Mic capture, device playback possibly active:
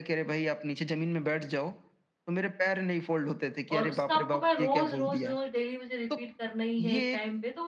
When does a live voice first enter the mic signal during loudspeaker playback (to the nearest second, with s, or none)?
4 s